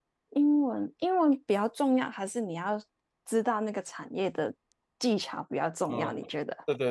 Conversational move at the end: taking over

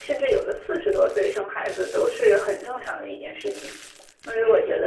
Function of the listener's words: listening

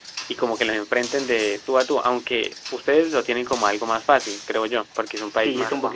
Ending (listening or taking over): taking over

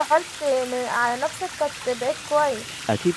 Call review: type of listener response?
taking over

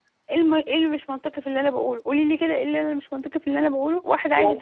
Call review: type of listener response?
listening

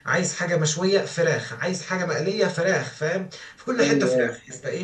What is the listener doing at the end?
listening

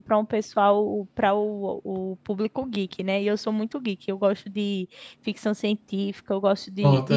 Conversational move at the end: listening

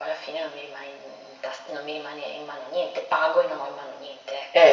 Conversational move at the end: taking over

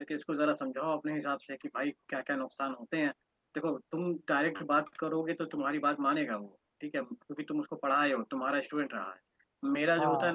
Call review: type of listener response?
listening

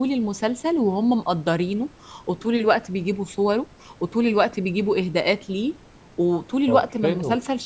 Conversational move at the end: listening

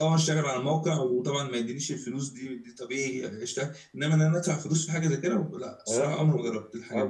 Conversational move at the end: taking over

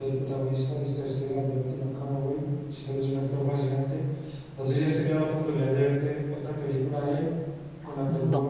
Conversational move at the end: listening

